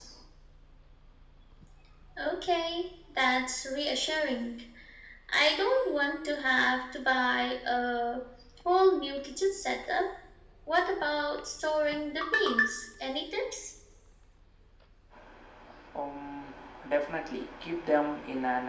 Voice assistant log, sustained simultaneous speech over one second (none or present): none